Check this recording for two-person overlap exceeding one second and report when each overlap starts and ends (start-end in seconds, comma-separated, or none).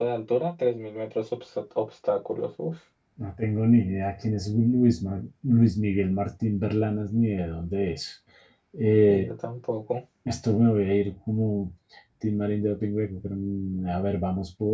none